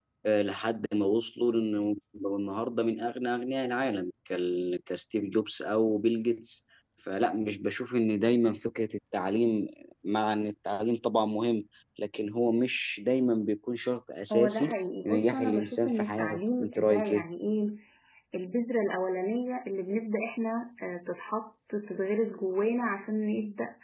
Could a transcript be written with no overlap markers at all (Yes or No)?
No